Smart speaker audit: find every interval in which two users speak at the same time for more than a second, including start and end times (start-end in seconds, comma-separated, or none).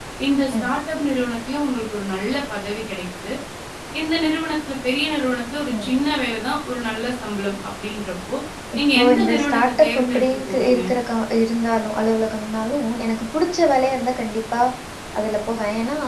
8.9-10.8